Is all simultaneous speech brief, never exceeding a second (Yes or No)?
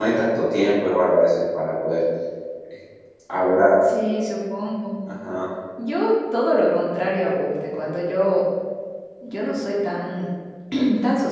Yes